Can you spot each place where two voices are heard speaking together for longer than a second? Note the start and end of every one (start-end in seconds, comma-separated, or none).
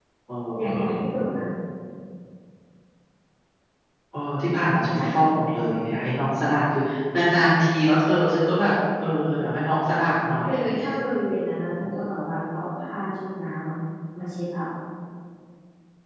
none